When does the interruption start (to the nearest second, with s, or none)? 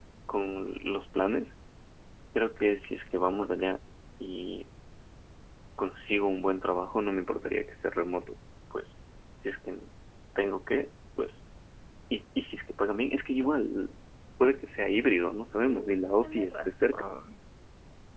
16 s